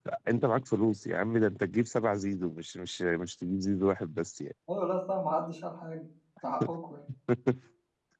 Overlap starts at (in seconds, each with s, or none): none